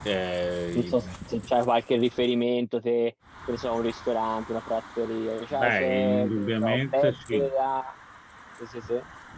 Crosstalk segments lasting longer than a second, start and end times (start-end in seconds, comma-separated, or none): 5.5-7.5